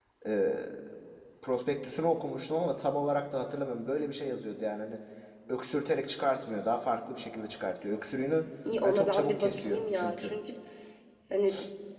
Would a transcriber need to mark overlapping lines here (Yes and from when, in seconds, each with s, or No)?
Yes, from 8.6 s